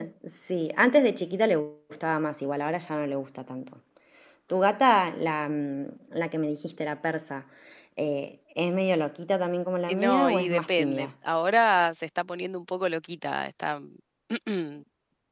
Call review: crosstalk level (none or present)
present